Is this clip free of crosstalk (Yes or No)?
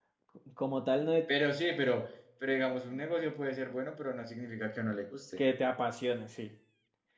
Yes